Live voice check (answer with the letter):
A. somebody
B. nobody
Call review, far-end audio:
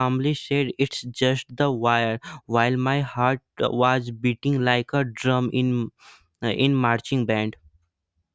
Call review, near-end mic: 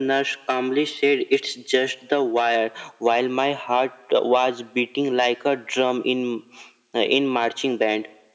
B